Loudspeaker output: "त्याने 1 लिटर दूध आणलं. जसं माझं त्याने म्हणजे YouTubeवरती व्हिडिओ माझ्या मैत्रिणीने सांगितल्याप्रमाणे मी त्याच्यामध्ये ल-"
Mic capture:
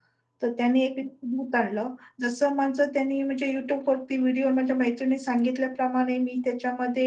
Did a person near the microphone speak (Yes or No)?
No